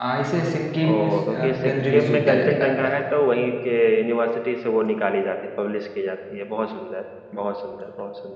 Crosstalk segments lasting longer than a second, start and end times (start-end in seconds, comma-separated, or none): 0.8-3.0